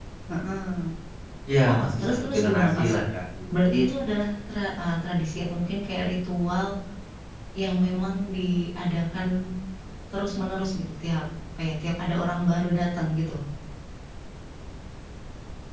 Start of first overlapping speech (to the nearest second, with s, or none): 2 s